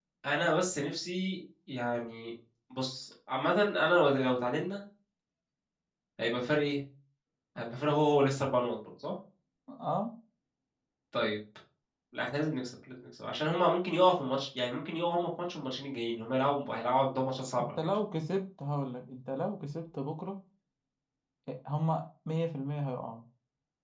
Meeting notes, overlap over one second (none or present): none